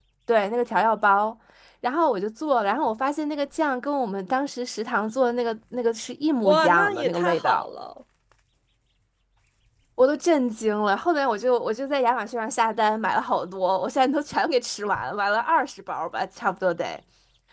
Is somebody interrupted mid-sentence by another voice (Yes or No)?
Yes